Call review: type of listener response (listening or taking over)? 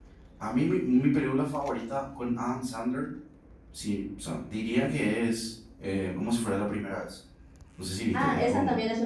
taking over